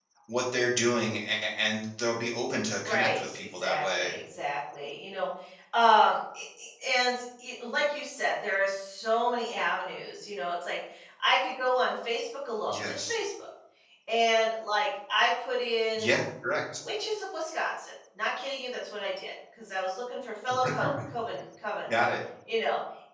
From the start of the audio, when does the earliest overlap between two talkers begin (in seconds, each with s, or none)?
2.9 s